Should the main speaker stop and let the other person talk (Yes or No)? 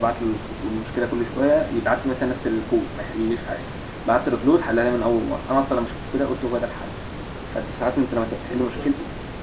No